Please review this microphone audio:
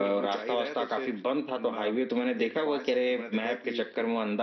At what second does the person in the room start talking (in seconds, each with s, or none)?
none